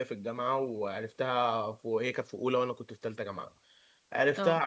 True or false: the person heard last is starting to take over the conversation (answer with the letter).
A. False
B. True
A